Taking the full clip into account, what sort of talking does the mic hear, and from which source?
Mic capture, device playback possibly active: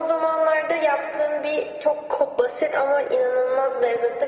echo only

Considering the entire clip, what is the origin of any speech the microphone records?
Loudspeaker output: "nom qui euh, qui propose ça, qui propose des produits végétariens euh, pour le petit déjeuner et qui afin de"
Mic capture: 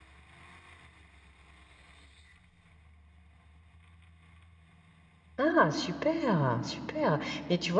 user only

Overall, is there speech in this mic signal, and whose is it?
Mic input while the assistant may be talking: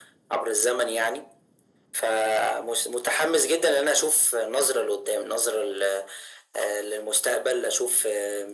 echo only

